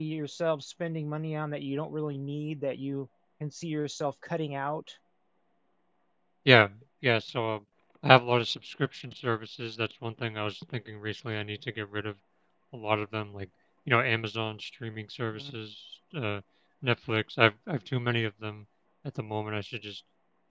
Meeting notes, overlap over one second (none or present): none